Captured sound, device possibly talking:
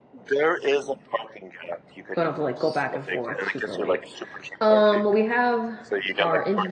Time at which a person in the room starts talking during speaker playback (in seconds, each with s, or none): 2.1 s